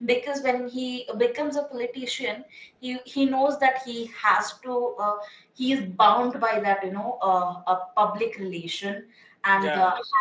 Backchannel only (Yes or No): Yes